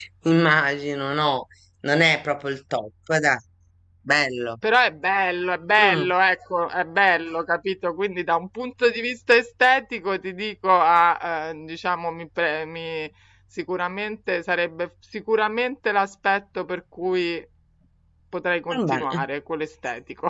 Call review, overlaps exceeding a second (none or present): none